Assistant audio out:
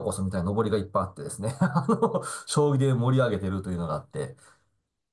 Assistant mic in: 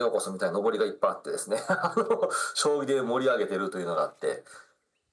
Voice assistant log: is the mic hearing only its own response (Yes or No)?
Yes